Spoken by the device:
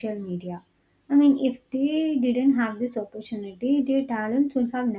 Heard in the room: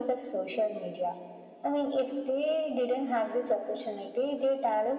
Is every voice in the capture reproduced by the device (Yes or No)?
Yes